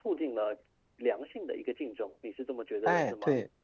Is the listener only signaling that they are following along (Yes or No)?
No